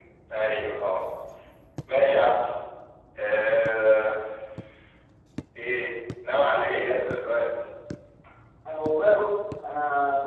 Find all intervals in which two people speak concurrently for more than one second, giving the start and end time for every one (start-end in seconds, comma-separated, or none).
none